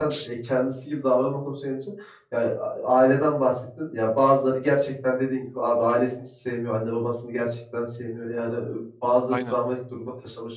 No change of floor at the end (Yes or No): Yes